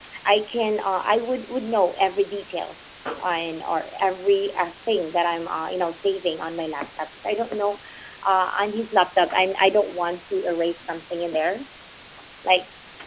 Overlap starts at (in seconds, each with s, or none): none